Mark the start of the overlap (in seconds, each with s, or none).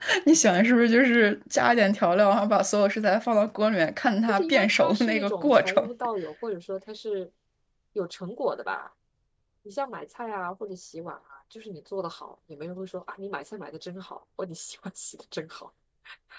4.3 s